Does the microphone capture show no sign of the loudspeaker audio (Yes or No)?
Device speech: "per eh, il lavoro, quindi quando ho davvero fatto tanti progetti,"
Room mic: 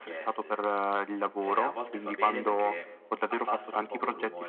No